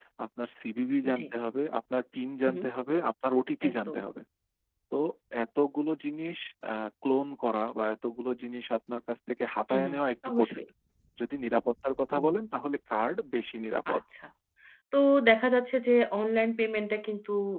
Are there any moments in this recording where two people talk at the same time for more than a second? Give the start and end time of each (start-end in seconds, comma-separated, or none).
none